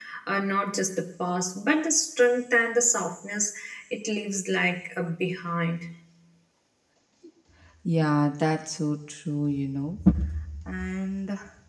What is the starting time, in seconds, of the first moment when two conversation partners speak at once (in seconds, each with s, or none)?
none